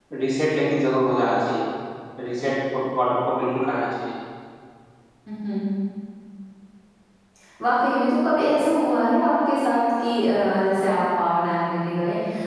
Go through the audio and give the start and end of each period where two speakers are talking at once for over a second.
none

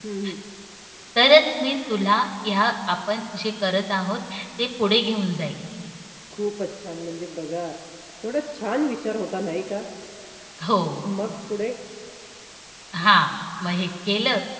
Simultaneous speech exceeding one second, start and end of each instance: none

